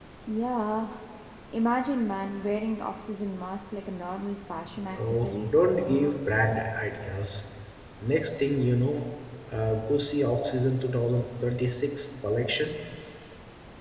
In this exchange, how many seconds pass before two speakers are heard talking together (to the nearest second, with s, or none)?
5 s